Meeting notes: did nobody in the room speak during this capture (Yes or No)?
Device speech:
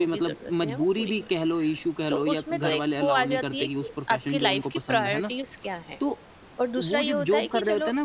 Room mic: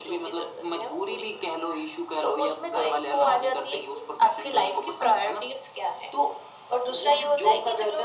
Yes